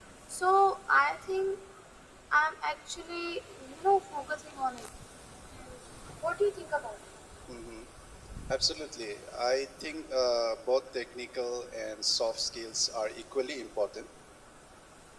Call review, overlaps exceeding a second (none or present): none